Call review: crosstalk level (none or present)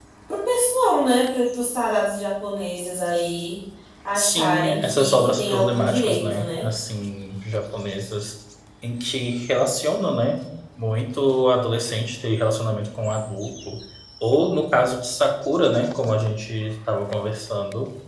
present